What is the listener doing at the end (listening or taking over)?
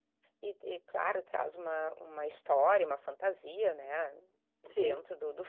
listening